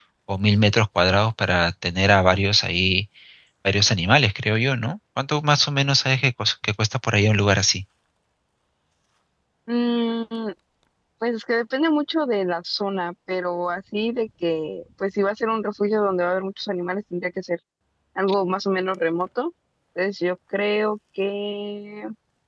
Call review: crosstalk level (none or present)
none